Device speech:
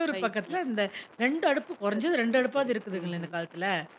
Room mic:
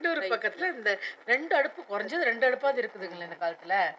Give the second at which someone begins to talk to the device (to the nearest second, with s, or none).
none